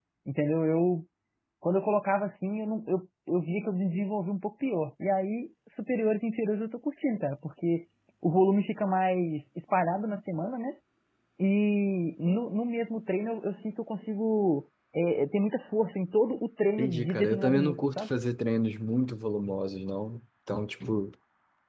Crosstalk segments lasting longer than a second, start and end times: 16.8-18.1

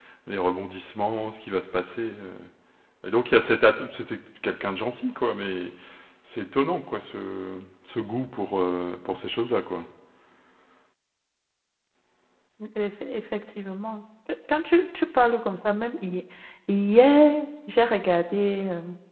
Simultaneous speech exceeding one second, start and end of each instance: none

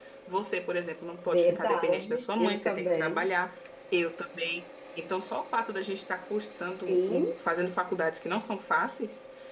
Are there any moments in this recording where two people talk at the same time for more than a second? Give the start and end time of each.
1.3-3.2

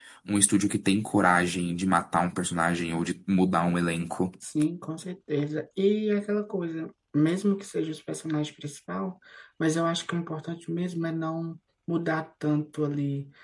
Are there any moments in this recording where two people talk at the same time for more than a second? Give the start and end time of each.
none

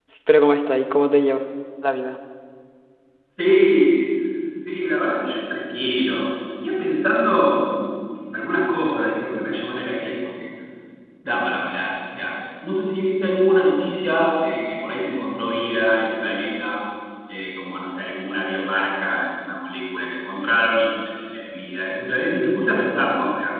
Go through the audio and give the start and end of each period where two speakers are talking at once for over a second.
none

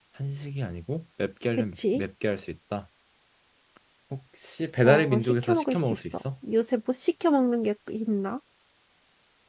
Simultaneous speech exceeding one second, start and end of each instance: 4.8-6.2

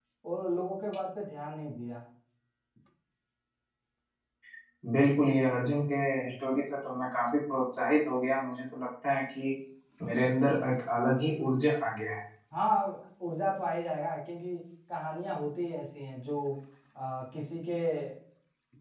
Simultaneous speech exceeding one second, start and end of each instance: none

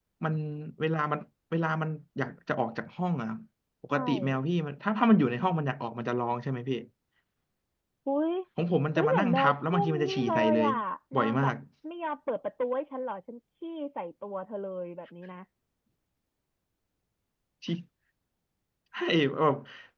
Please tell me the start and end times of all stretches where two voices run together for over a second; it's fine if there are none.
8.9-10.7

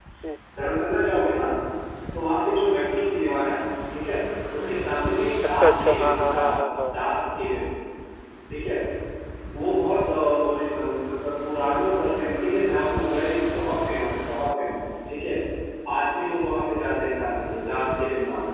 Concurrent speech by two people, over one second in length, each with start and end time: 5.6-6.9

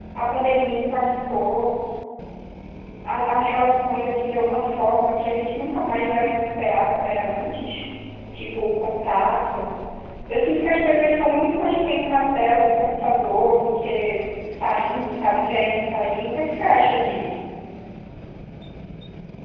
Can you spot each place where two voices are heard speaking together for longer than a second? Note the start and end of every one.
none

